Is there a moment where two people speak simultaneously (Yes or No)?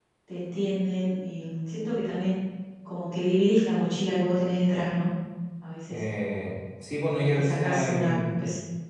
Yes